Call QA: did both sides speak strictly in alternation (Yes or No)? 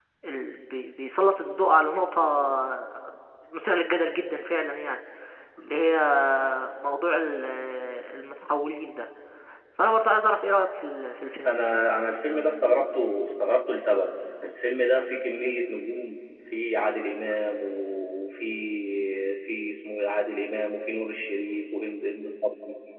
Yes